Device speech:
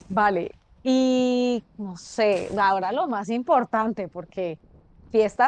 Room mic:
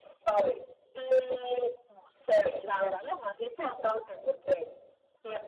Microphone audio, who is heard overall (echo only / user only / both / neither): echo only